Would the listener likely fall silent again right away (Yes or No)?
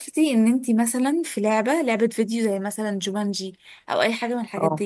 Yes